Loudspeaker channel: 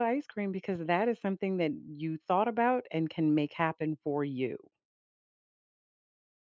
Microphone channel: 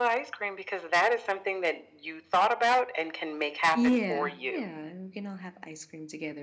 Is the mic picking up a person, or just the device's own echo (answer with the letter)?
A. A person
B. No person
A